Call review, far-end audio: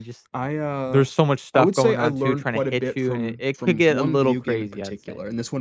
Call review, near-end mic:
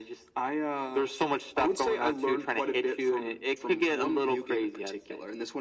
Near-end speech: none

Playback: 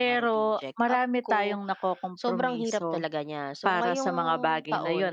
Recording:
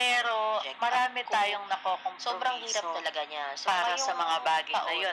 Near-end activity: none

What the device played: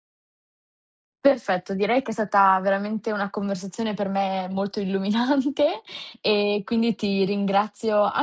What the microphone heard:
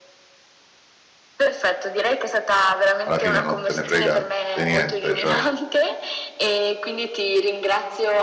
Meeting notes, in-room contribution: present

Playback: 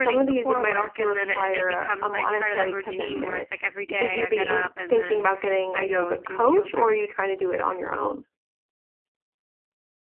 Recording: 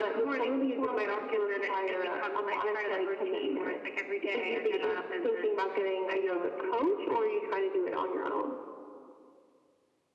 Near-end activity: none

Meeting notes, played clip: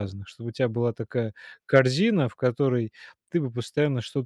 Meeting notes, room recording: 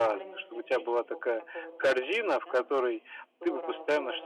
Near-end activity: present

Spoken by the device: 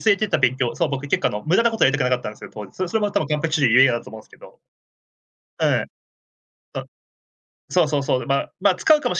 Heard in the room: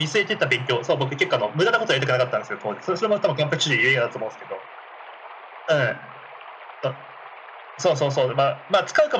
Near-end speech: none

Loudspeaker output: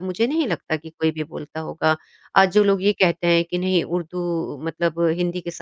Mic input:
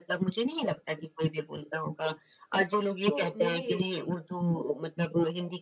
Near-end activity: present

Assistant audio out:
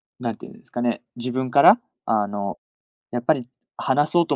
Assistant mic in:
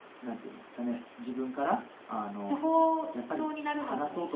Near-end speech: present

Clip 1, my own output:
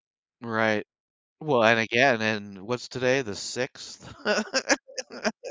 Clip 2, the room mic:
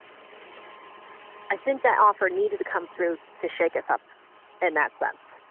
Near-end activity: present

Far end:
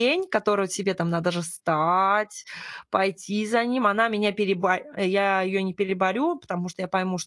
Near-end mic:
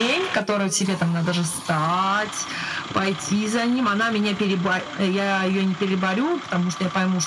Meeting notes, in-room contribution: none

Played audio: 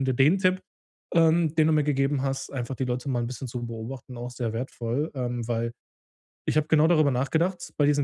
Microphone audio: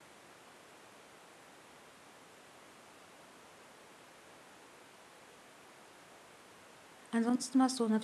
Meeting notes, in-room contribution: present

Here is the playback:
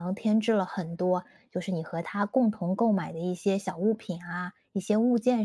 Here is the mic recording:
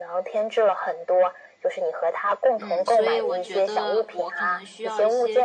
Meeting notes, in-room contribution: present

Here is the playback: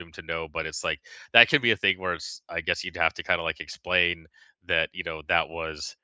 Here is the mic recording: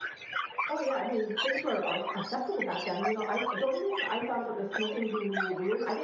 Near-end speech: present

